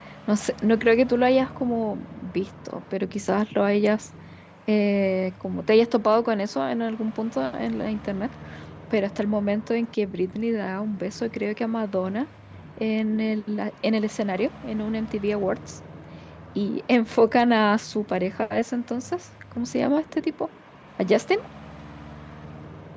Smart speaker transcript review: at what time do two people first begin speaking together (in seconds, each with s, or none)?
none